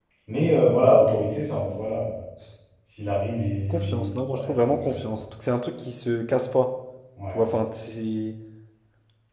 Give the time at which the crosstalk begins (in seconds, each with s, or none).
3.7 s